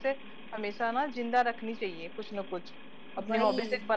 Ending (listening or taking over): listening